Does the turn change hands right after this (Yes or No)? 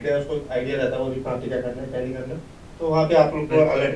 No